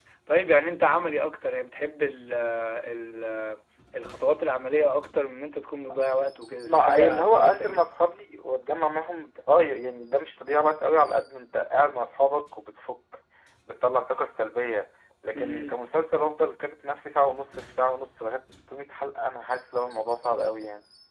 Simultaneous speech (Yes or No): Yes